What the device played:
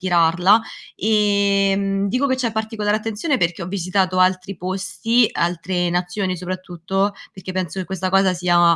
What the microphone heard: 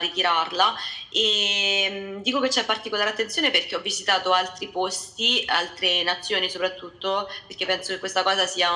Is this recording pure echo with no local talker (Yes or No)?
Yes